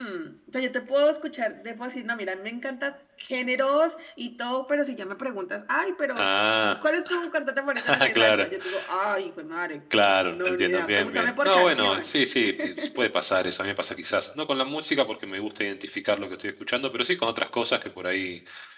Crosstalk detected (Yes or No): Yes